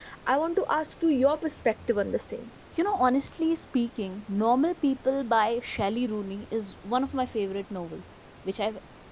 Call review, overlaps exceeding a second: none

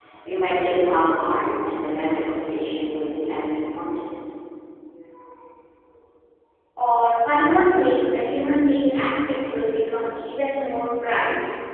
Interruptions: none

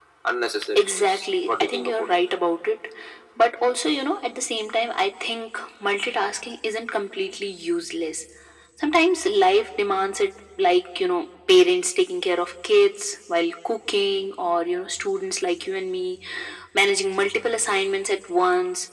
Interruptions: present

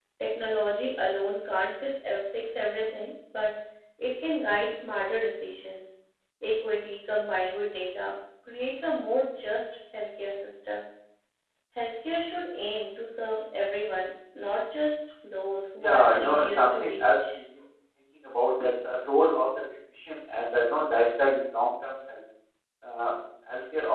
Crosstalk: present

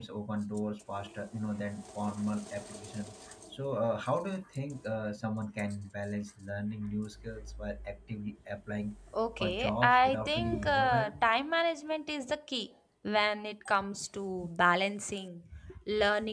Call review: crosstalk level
present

